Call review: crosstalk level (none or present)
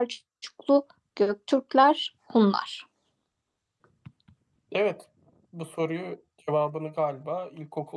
none